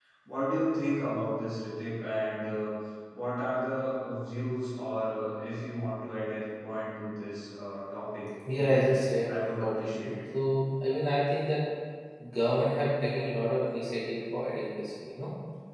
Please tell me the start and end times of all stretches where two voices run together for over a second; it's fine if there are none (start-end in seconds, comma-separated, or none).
8.5-10.2